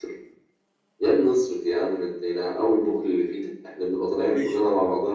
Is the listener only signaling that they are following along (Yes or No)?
Yes